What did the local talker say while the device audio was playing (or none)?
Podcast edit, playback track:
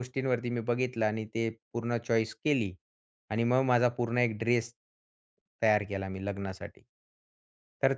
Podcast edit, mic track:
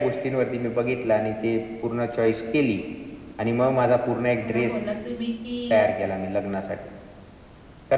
बरोबर बोललात तुम्ही, की